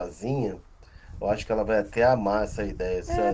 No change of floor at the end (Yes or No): No